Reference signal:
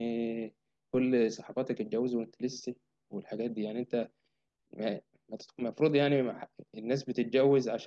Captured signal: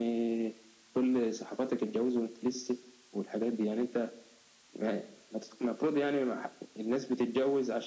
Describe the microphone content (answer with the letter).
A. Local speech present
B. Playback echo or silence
B